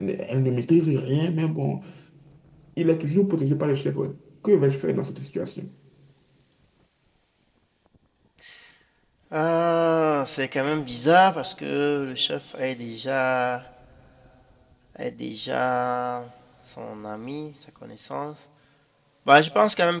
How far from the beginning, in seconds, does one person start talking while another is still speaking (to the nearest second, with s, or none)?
none